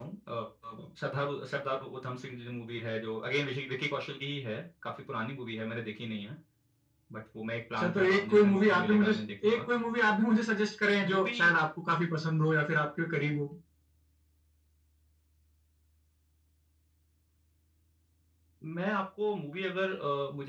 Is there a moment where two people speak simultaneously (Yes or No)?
Yes